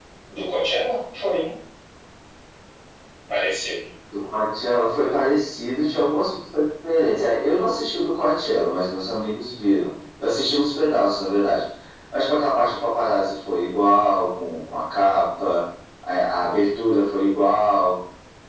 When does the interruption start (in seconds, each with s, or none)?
none